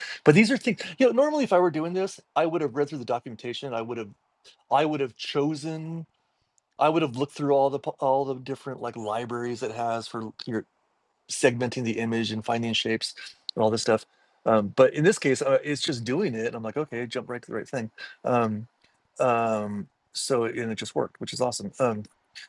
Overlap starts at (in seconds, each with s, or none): none